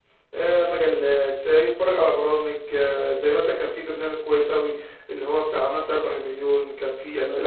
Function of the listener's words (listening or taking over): taking over